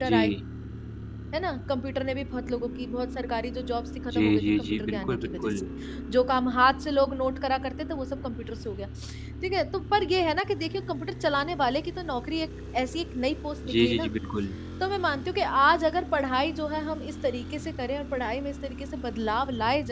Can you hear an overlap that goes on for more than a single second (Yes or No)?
Yes